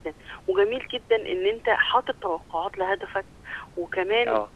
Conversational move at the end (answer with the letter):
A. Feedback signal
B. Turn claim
A